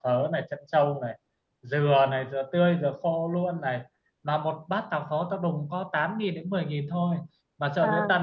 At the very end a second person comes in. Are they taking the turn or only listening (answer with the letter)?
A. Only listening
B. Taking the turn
A